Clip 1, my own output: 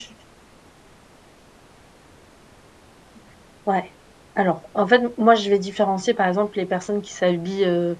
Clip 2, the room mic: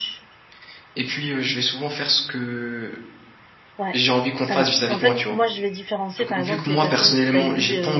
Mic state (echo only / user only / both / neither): both